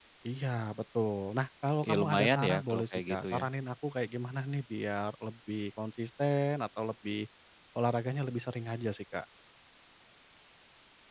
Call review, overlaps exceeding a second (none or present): present